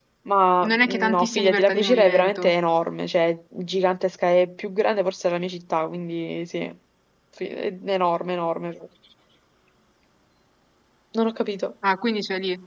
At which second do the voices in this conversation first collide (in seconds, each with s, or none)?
0.6 s